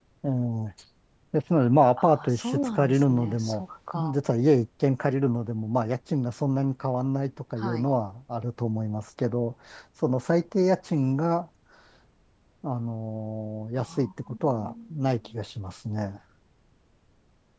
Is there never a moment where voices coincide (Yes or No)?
No